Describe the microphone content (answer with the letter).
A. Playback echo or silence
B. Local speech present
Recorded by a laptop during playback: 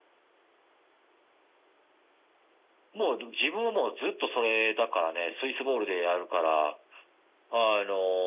A